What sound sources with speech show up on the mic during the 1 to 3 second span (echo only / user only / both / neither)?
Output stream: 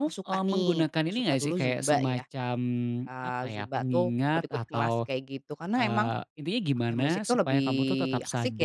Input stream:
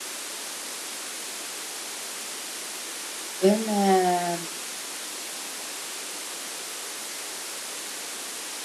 neither